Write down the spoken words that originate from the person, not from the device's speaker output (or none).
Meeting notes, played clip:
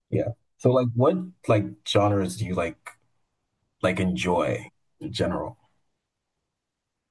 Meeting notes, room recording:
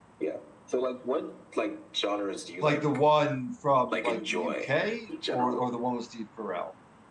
like the one from like the UK or or the one with Steve Carell.